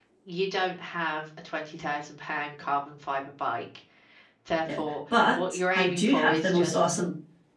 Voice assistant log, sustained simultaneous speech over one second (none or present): present